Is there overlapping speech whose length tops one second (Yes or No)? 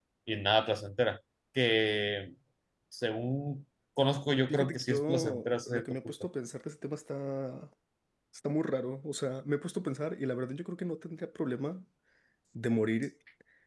Yes